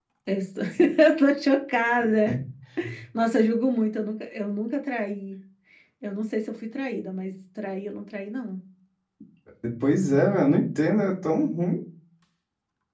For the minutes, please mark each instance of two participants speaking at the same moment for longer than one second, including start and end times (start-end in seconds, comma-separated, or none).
none